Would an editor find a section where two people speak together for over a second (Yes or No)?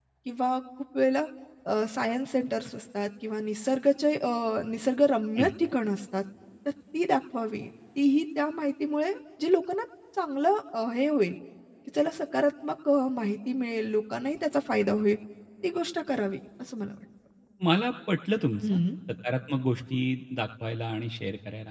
No